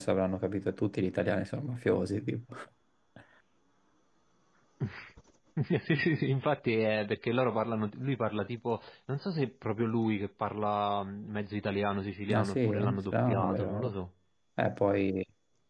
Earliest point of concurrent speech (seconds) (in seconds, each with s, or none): 12.3 s